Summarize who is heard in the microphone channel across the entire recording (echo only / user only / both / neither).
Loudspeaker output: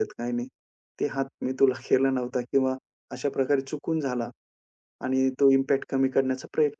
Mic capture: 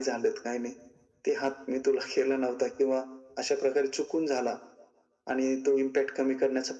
echo only